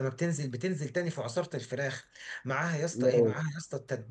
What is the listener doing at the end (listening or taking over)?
listening